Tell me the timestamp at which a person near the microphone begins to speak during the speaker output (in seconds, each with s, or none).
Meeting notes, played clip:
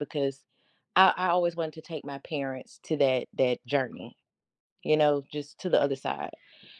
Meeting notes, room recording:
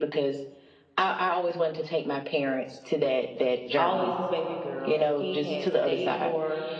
3.8 s